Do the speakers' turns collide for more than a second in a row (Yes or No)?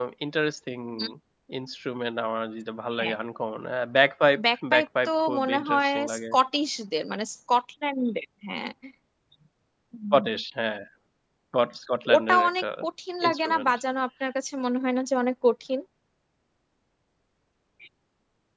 Yes